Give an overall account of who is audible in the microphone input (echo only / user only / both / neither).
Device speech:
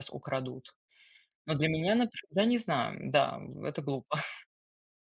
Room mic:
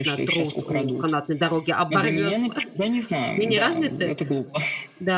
both